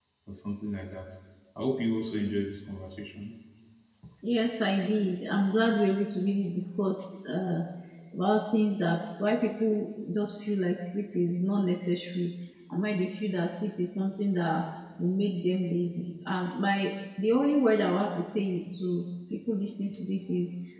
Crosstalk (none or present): none